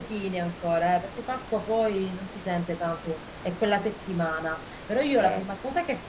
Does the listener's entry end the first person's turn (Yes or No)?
No